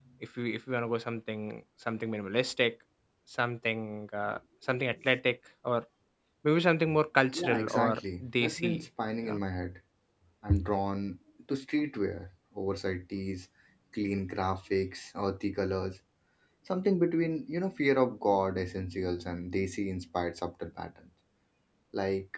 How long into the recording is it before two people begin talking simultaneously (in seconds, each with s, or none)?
7.3 s